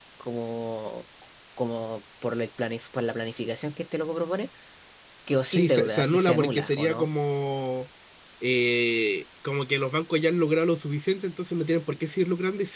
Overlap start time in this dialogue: 5 s

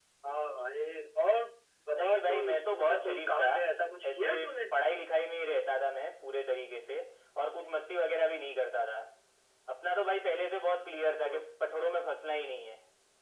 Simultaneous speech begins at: 2 s

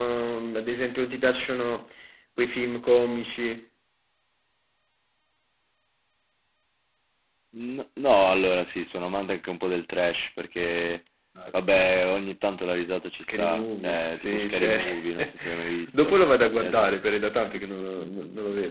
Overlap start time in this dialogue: 13 s

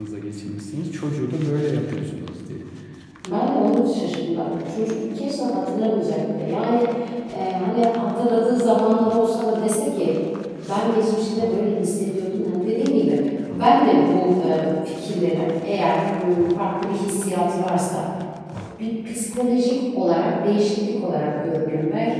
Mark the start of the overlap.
none

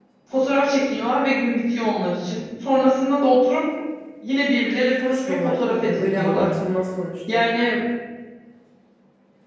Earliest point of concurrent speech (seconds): 5 s

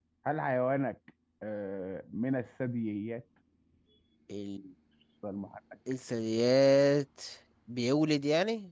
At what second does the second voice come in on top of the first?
none

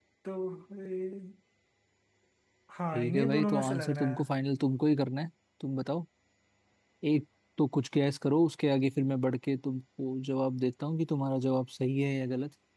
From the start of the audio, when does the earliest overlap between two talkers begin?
3 s

